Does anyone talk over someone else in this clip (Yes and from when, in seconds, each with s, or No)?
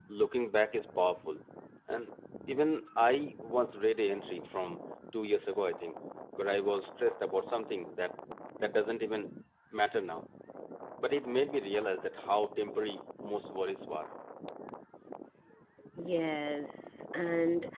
No